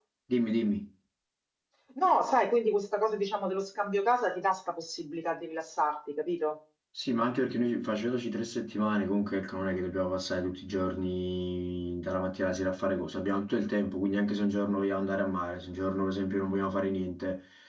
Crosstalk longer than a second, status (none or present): none